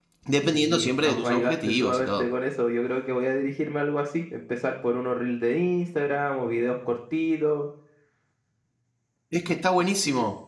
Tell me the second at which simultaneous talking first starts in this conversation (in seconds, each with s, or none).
0.5 s